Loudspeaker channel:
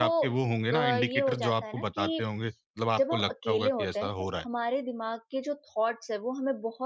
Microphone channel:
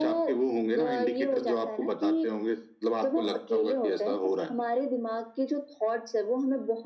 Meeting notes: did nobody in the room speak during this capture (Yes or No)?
Yes